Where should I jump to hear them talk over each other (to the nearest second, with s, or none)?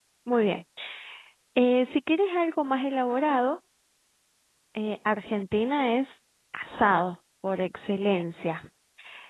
none